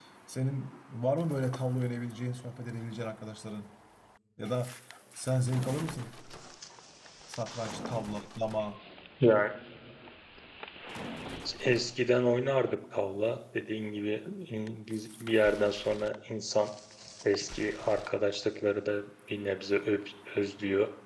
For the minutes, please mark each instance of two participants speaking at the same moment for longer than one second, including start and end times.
none

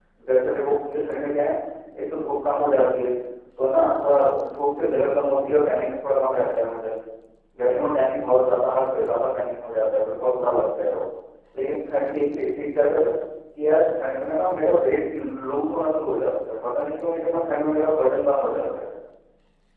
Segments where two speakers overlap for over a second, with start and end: none

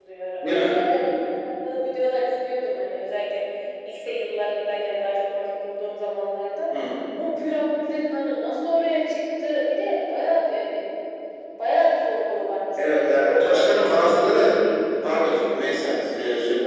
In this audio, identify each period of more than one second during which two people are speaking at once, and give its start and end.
12.8-14.6

